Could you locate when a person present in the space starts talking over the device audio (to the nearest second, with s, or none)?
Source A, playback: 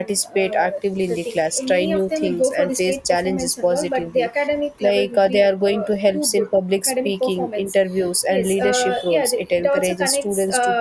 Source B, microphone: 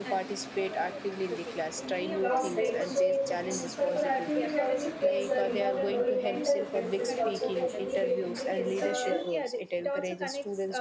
2 s